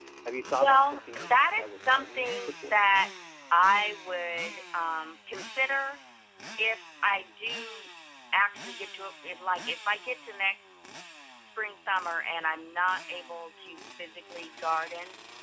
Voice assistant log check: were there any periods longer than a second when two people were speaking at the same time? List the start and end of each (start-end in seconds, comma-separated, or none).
0.6-2.8